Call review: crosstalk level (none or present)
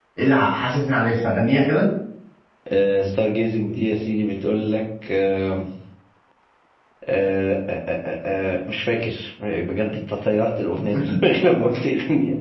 none